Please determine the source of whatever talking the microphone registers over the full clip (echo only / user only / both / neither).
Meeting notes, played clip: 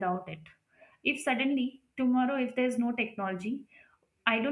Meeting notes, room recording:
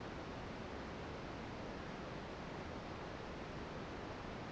neither